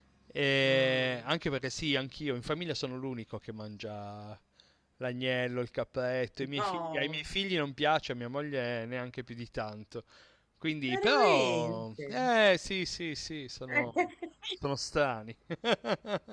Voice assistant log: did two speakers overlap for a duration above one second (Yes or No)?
Yes